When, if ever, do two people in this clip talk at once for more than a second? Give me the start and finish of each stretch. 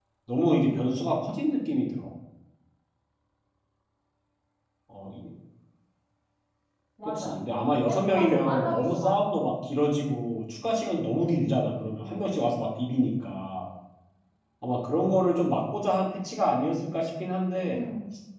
7.8-9.3

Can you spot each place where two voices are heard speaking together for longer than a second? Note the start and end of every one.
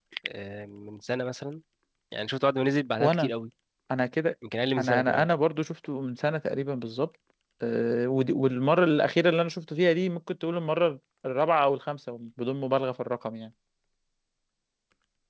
none

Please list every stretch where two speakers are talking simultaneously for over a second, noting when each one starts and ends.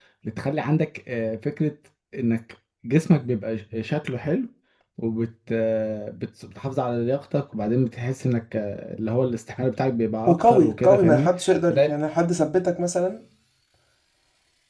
10.3-11.9

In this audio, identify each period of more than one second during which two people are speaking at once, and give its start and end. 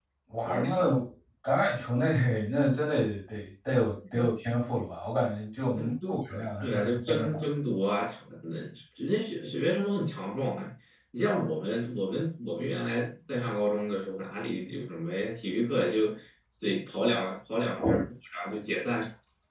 5.7-7.4

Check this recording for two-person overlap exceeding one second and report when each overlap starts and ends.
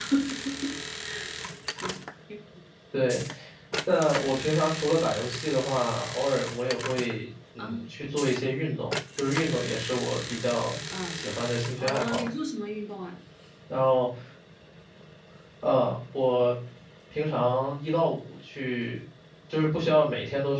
none

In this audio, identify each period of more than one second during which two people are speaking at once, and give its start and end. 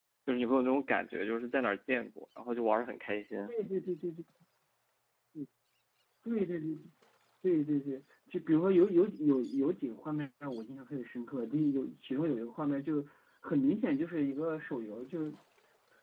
none

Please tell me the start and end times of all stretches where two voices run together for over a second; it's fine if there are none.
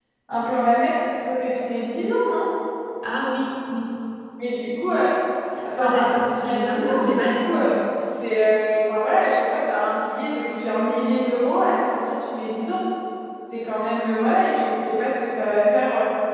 5.8-7.4

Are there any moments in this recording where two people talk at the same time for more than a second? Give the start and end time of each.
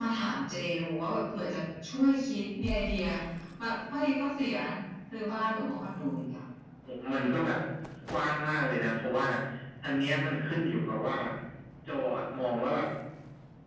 none

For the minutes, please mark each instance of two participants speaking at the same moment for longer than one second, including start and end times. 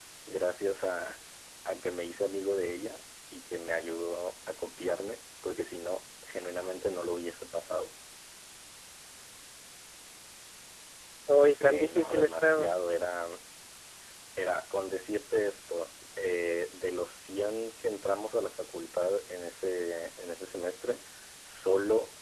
11.5-12.8

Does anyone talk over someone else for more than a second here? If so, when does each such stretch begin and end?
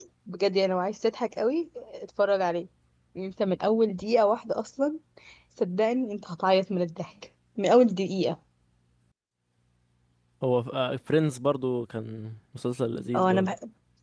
none

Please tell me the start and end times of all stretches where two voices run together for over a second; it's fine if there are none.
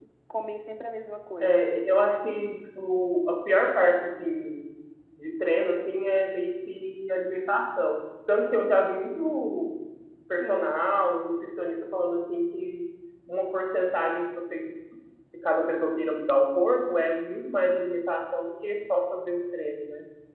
none

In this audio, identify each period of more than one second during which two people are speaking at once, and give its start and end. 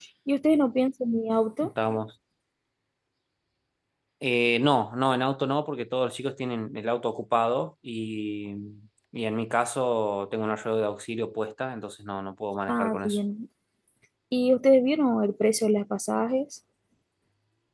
none

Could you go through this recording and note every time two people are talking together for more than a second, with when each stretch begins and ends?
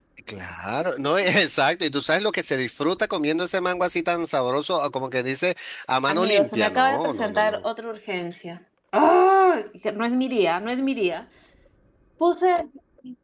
6.1-7.6

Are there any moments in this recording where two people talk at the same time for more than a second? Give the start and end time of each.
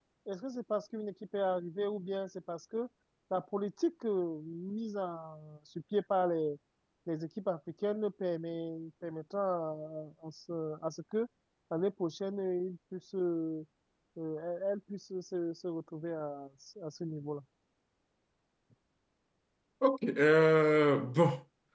none

